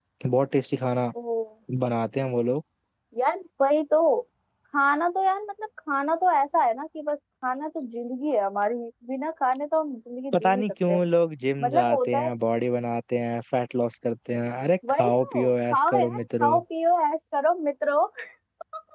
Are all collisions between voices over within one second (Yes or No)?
No